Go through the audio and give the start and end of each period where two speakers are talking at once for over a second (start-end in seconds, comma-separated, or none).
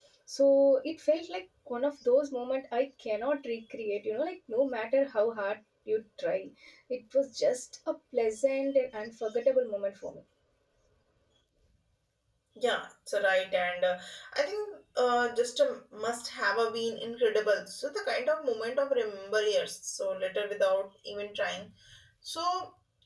none